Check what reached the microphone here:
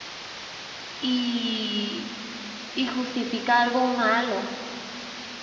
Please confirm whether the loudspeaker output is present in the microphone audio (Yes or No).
No